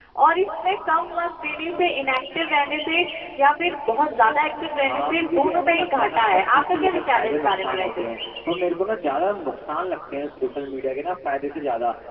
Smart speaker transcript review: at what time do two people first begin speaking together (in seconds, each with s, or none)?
4.8 s